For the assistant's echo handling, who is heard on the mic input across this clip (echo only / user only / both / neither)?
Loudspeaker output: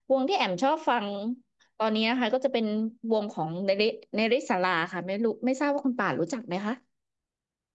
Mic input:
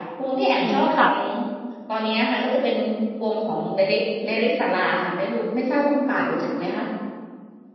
both